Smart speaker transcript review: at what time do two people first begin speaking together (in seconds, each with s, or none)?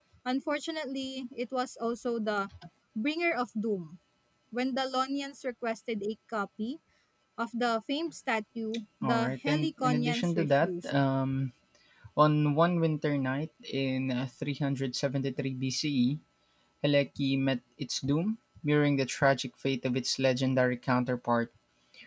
9.0 s